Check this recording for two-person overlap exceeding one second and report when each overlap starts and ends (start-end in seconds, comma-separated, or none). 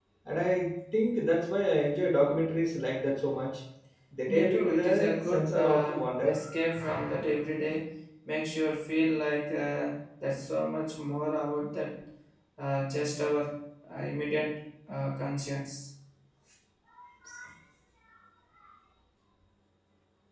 4.3-6.4